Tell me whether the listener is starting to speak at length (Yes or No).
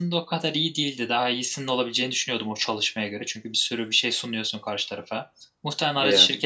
No